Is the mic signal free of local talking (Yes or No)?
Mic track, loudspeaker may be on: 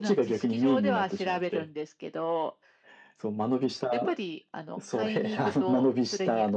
Yes